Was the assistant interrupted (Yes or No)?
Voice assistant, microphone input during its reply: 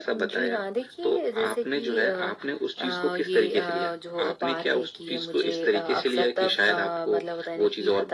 No